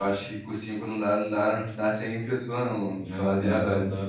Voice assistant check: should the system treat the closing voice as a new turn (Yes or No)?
Yes